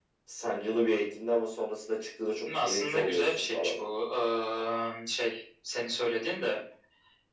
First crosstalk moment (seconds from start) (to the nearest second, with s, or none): 2 s